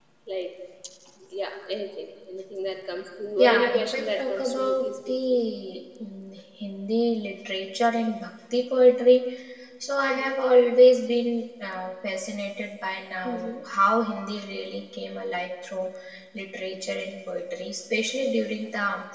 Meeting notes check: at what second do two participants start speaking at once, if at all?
3.4 s

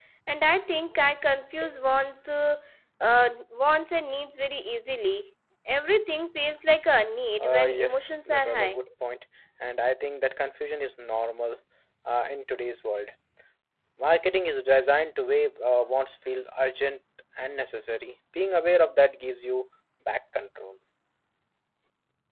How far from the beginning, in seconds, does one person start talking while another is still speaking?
7.4 s

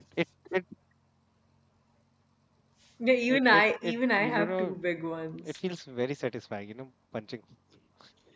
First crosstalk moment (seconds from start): 3.3 s

